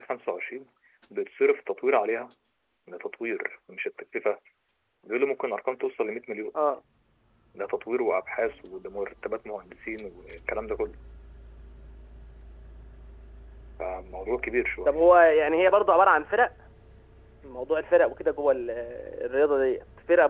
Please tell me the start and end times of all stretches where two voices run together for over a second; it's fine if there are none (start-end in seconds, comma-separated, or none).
none